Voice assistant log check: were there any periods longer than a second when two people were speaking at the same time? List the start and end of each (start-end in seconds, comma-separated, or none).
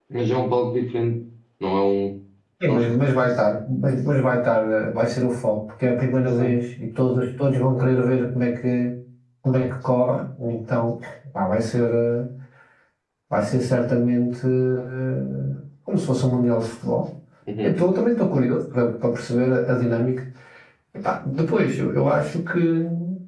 none